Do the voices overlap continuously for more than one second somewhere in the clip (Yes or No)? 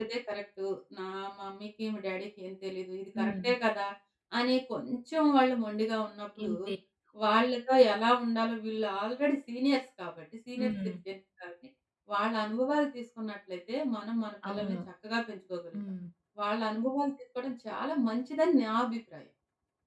No